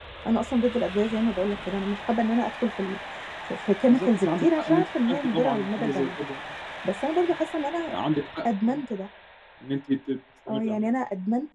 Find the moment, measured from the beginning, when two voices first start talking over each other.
3.8 s

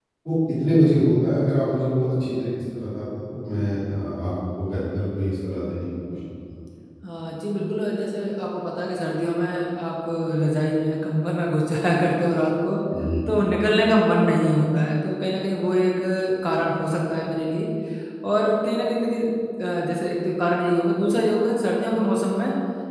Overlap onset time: none

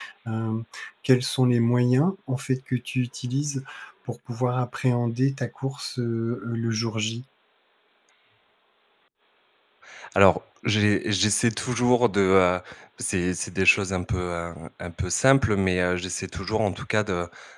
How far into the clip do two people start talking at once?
none

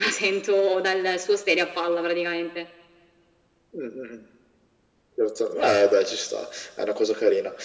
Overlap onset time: none

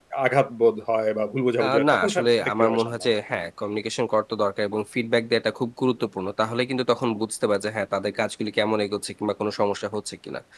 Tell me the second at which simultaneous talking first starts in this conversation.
1.6 s

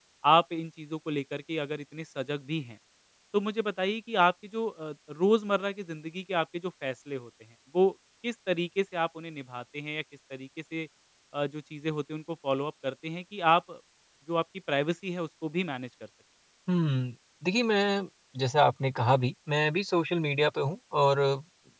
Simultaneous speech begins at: none

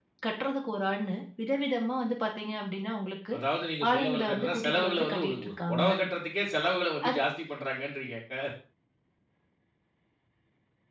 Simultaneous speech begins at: 3.9 s

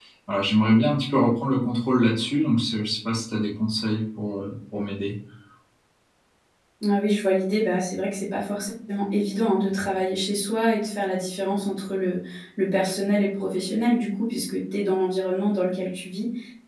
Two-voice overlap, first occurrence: none

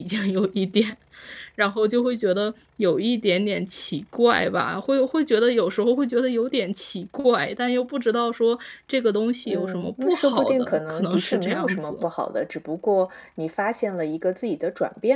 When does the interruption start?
9.4 s

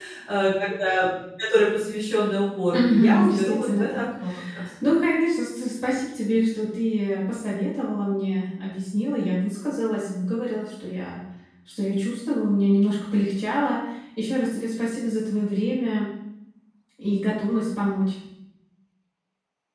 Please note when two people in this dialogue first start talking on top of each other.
2.7 s

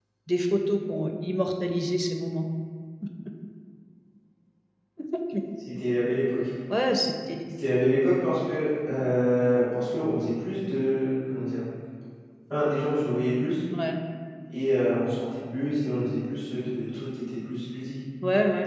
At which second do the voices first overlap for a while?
none

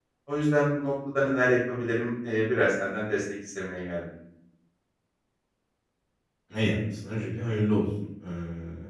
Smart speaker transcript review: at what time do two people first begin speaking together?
none

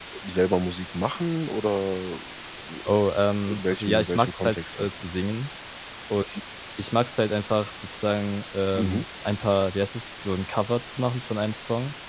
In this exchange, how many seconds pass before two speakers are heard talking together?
3.5 s

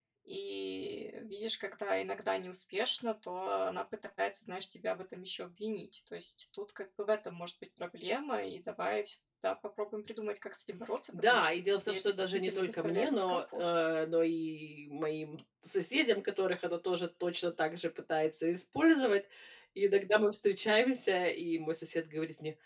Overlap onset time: 11.1 s

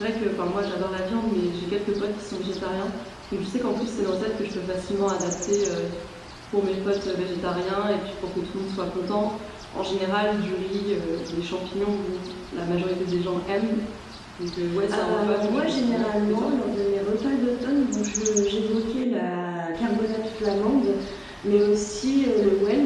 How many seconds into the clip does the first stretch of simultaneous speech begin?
14.9 s

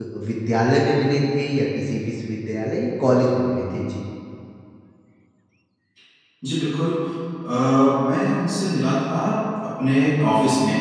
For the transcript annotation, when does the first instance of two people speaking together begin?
none

